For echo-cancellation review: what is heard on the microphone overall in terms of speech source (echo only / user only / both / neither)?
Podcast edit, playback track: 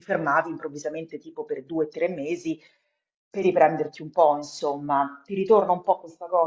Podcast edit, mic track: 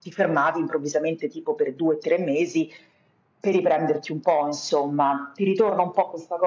echo only